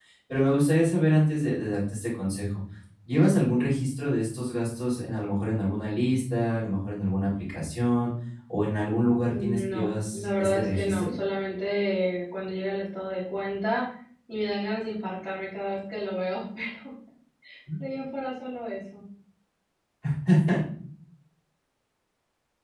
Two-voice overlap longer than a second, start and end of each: 9.2-11.1

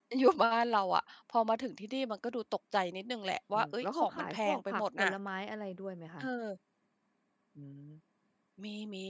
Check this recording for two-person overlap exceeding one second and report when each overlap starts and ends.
3.5-5.1

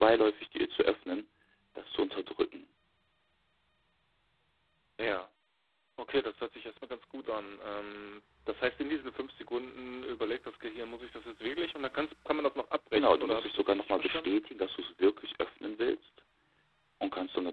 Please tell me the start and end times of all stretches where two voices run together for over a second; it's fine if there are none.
12.9-14.4

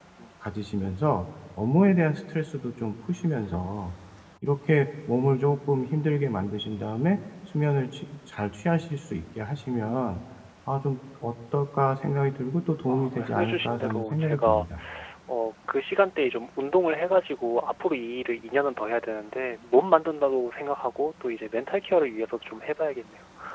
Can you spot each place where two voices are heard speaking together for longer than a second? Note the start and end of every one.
12.9-14.7

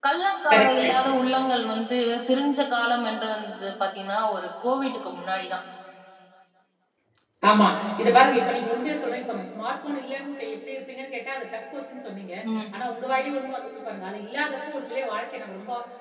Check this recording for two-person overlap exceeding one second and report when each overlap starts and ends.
none

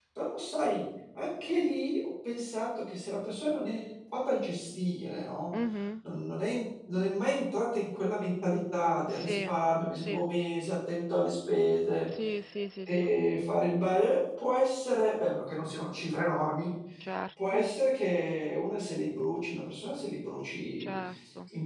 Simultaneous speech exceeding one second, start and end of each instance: none

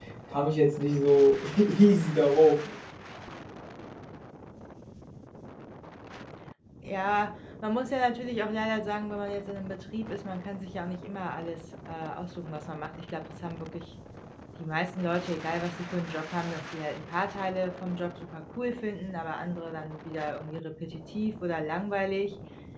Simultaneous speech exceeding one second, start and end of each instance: none

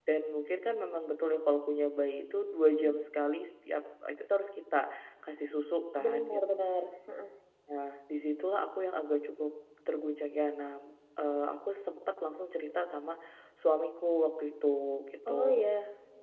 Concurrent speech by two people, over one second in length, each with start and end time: none

